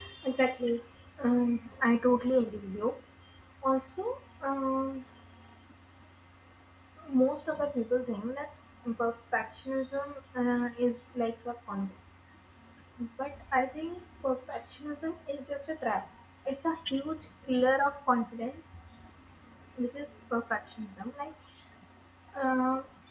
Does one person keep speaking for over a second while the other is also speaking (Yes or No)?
No